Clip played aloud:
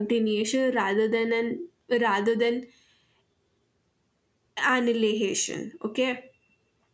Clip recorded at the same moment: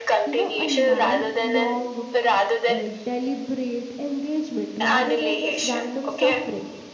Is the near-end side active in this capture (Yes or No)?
Yes